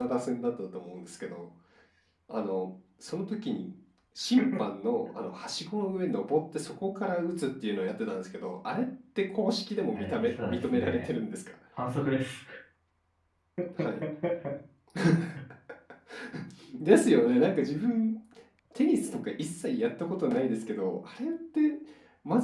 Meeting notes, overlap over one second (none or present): present